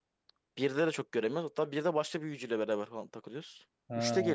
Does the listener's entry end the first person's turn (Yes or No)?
No